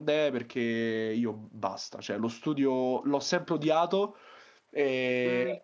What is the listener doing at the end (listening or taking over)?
listening